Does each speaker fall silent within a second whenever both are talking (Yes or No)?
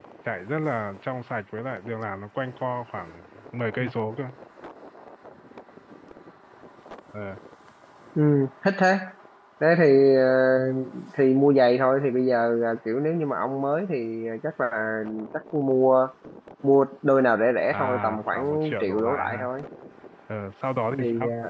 No